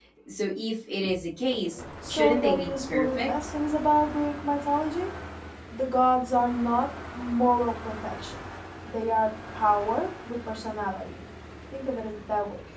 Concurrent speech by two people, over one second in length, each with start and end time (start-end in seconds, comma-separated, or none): 2.1-3.5